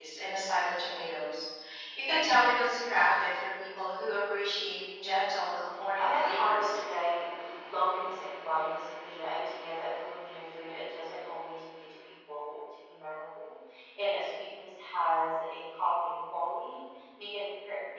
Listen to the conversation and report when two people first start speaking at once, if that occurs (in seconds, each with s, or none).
4.9 s